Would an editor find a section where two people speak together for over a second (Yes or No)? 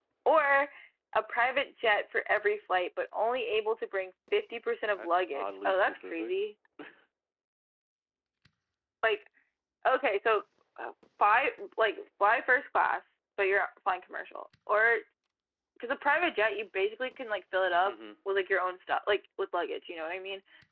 Yes